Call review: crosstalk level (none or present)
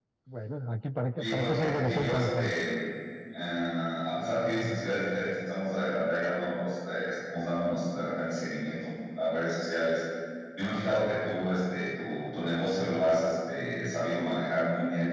present